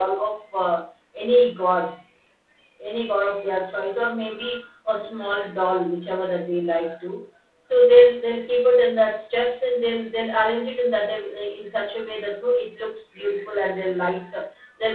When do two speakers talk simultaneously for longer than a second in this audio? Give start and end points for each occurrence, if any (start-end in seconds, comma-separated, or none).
none